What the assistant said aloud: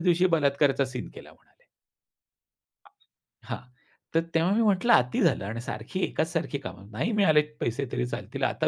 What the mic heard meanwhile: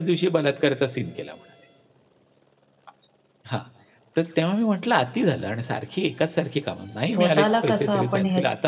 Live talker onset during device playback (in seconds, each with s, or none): 7.0 s